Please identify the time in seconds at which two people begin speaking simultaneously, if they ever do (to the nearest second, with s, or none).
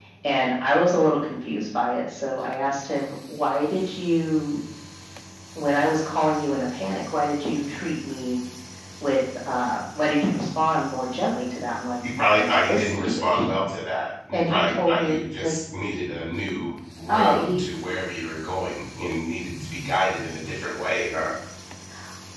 12 s